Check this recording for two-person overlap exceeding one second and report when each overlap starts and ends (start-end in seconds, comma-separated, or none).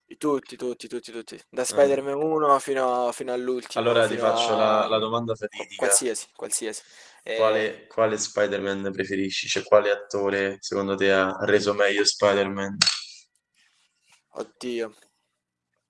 3.8-5.1